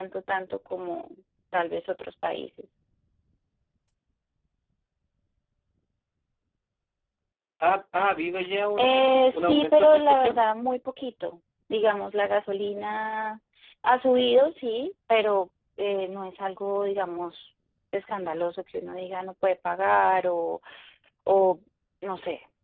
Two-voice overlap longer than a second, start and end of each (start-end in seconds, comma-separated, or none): 8.8-10.4